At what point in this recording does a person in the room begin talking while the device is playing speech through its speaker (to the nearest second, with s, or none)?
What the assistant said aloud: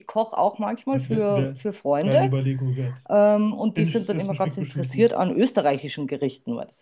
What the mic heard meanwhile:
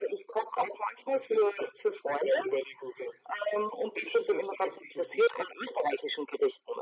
none